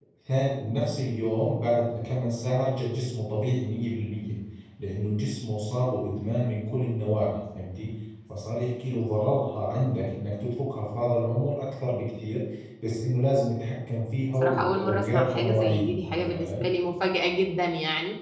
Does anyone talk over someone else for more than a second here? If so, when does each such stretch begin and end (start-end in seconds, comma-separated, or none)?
14.4-16.6